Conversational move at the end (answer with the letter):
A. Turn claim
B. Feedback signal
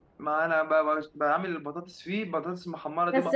A